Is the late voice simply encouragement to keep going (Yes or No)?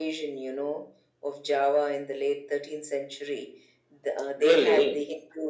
Yes